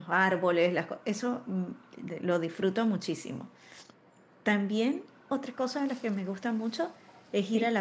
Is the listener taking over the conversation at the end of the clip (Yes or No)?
No